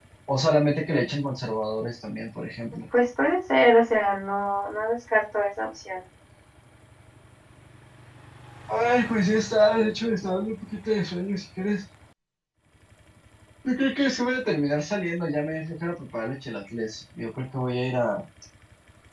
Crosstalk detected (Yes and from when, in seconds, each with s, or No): No